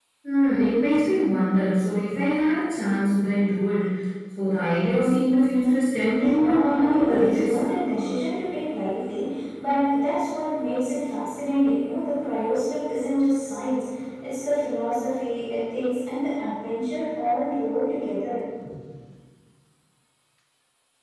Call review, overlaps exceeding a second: present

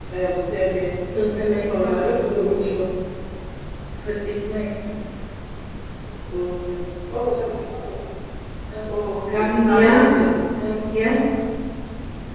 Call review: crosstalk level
present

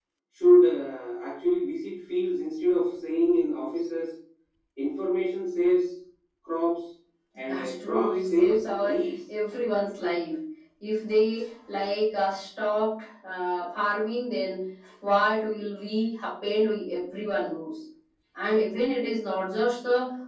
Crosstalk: present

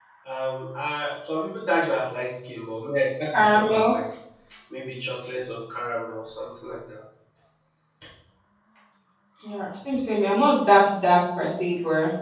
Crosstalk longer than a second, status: none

